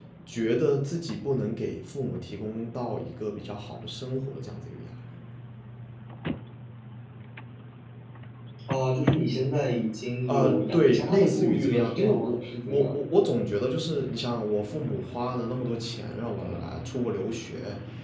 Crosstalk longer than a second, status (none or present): present